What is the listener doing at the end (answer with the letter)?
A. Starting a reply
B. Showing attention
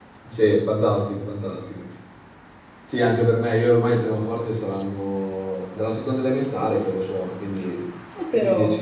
B